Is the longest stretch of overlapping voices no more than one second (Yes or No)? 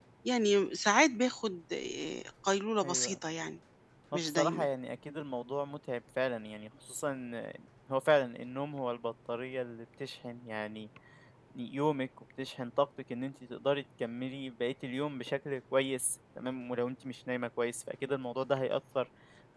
Yes